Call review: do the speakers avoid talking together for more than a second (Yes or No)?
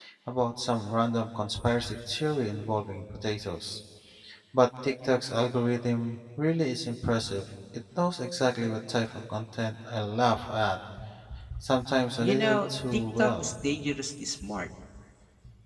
No